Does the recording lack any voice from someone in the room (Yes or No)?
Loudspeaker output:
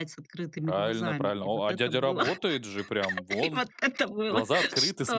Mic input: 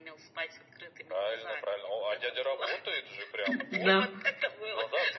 No